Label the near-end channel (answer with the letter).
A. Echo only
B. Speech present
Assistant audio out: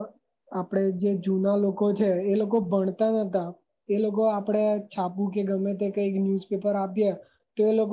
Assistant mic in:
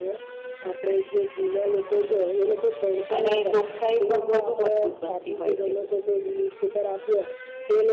B